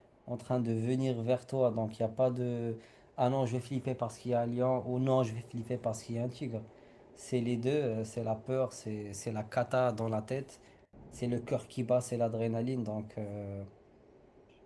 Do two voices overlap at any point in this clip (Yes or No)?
No